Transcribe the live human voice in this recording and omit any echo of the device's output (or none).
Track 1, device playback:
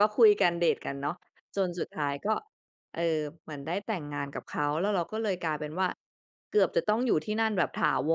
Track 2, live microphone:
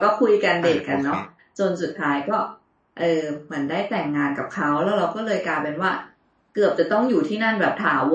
อา โอเค